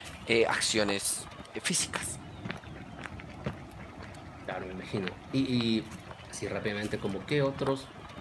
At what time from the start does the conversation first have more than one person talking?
none

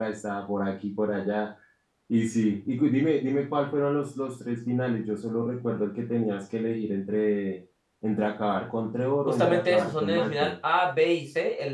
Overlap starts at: 9 s

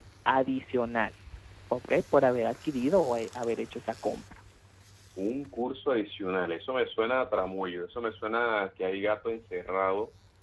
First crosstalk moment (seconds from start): none

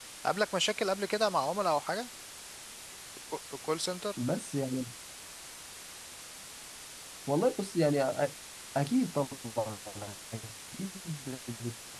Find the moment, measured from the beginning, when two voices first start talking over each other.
none

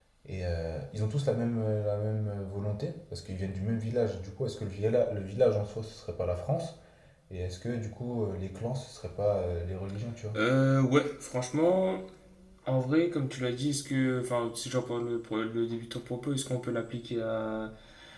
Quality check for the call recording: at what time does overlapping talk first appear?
none

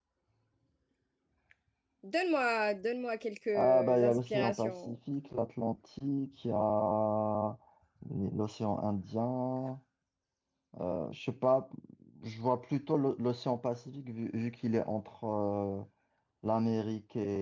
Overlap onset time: 4 s

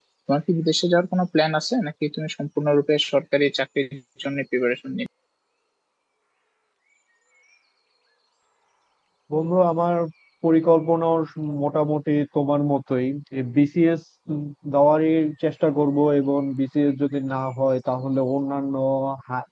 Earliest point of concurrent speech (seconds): none

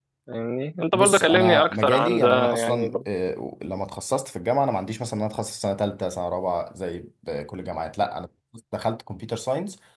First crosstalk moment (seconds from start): 1 s

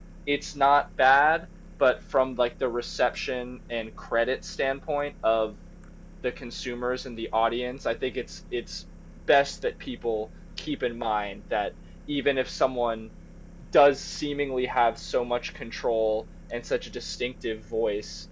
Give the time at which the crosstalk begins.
none

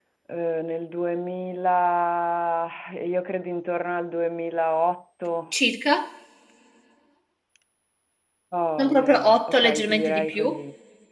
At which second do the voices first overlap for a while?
9 s

